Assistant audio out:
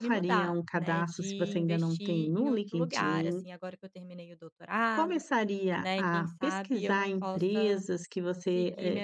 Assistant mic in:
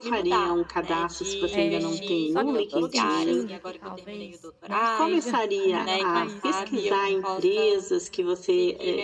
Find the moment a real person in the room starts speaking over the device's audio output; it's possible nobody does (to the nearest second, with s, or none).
2 s